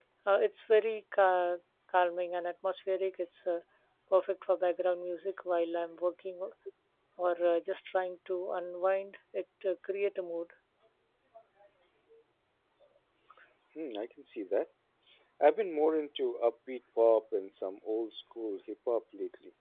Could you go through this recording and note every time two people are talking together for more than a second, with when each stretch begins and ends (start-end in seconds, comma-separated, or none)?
none